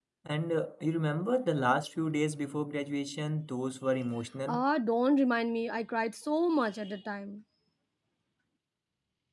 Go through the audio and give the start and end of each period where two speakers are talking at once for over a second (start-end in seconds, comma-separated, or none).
none